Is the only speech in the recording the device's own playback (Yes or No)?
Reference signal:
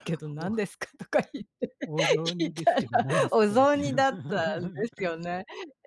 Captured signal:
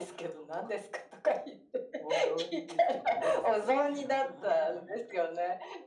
Yes